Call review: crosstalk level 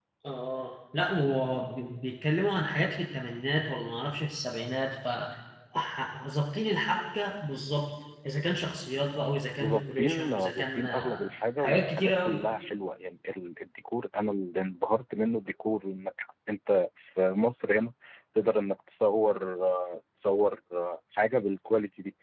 present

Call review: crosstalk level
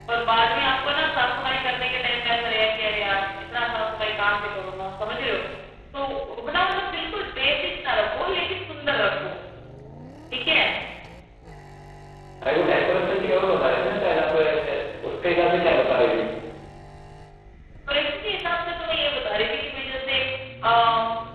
none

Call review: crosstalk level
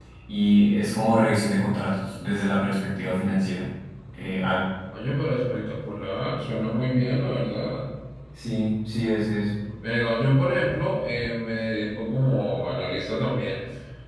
none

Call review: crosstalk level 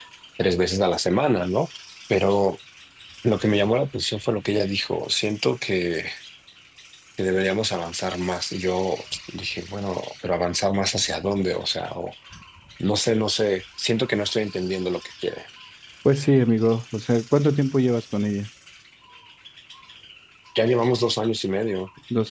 none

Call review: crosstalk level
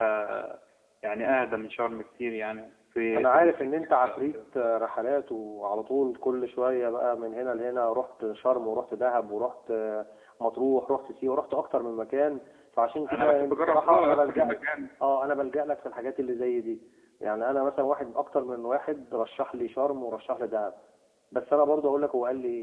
present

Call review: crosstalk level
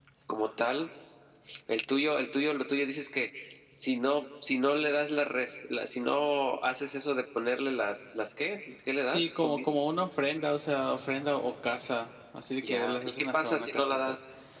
present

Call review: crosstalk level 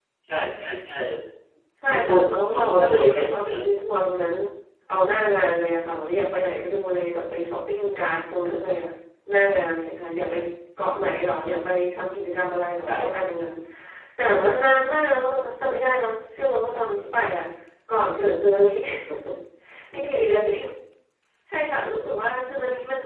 present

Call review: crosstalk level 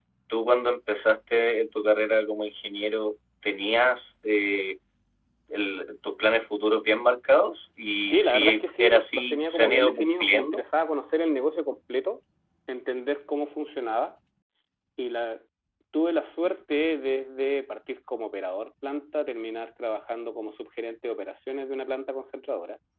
present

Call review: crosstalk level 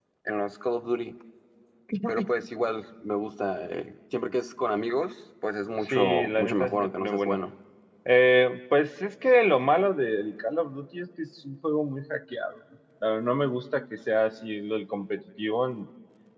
present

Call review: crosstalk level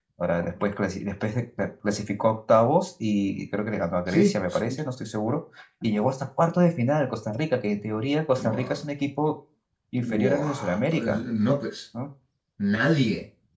present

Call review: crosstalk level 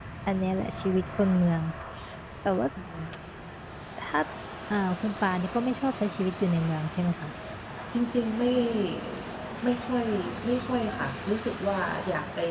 none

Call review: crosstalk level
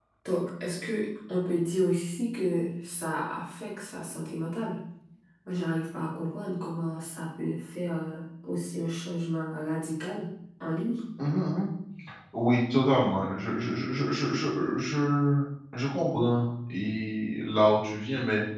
none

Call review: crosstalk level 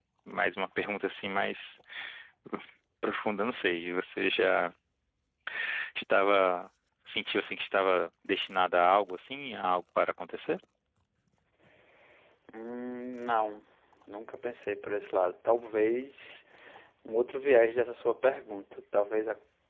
none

